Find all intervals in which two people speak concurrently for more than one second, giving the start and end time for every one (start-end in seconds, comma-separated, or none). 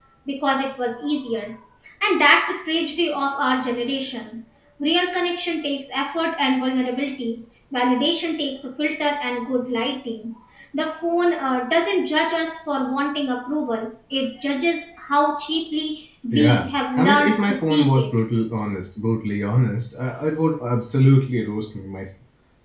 16.3-18.1